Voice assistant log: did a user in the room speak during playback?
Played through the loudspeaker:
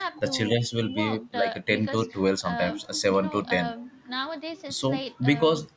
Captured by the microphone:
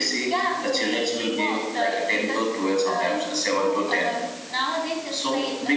No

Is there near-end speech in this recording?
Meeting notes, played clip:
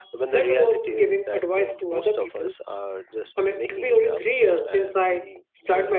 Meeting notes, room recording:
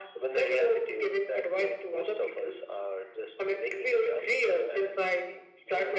No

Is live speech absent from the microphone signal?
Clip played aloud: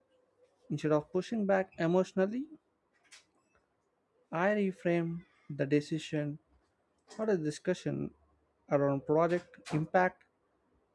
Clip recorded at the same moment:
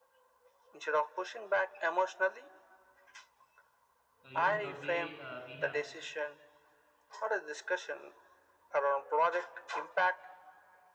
No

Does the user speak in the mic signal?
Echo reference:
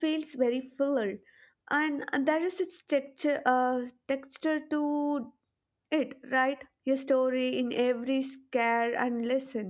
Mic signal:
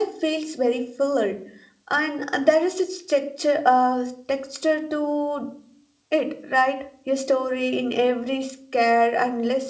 No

